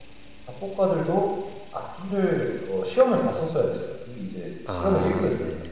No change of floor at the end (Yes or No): No